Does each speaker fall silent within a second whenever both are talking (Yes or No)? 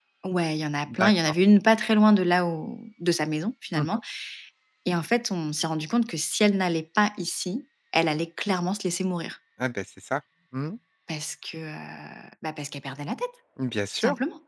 Yes